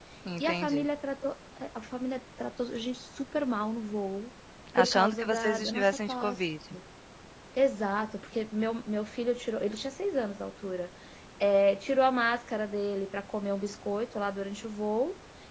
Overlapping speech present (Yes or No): Yes